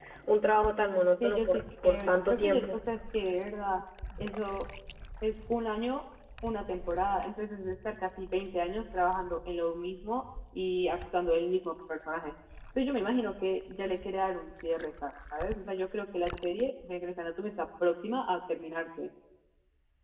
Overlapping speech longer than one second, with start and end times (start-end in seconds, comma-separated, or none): 1.2-2.8